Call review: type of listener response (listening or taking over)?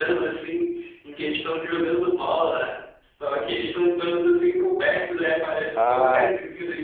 listening